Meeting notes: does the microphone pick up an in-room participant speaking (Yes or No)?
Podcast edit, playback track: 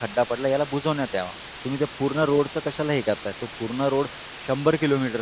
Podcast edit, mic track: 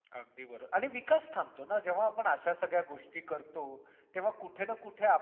Yes